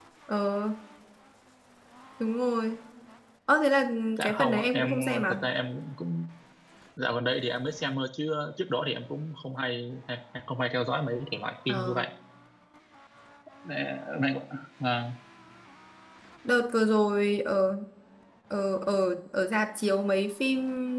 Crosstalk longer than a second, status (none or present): present